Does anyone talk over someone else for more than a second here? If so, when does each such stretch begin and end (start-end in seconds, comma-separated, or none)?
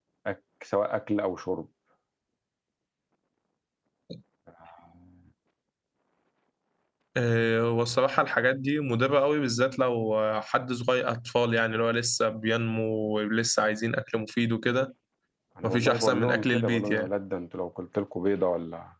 15.6-17.1